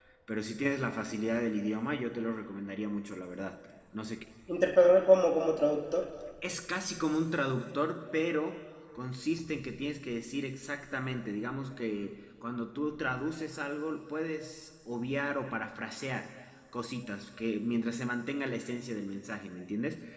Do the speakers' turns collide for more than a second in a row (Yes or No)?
No